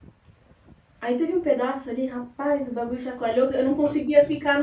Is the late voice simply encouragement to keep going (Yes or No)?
Yes